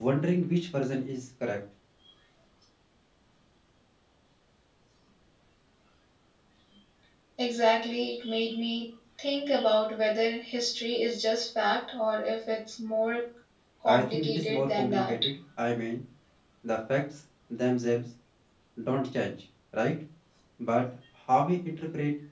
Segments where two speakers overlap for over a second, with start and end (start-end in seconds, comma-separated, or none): 13.9-15.1